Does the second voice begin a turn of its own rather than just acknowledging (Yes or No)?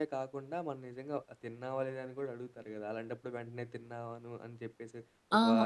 Yes